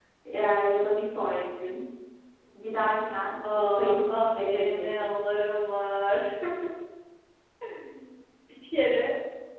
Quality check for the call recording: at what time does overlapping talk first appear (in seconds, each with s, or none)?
3.4 s